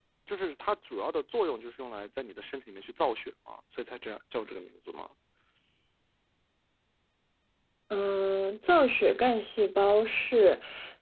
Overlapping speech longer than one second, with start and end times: none

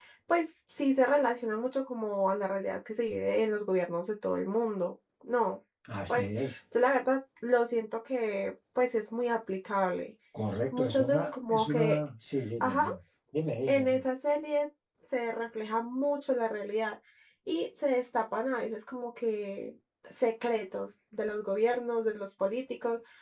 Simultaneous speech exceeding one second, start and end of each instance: 10.7-12.0

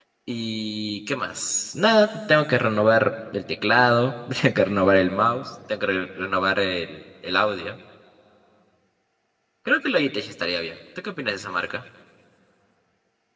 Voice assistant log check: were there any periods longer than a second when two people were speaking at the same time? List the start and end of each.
none

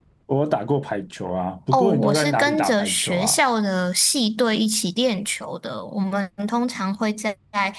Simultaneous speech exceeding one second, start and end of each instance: 1.7-3.4

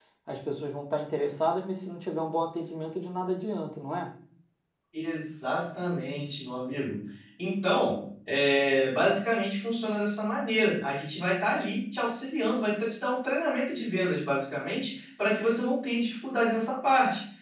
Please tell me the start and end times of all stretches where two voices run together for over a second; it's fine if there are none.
none

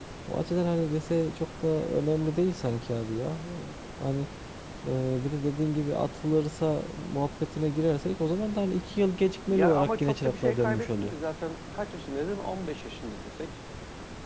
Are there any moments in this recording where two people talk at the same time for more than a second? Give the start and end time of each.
9.5-11.1

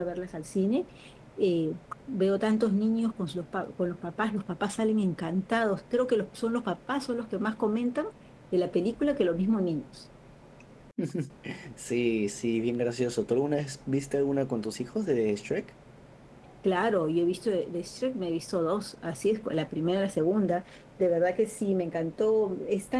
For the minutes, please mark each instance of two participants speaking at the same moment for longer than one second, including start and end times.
none

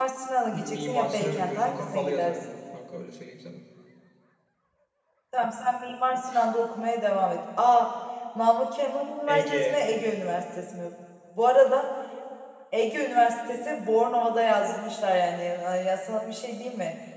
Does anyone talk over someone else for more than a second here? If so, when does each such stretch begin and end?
0.5-2.4

